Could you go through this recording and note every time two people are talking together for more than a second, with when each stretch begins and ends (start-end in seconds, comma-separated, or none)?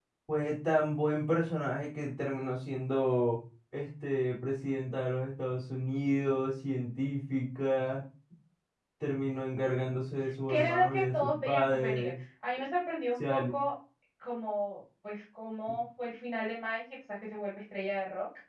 10.5-12.1